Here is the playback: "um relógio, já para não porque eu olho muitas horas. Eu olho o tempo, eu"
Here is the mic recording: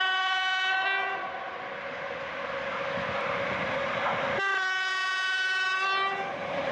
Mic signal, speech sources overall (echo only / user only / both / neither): neither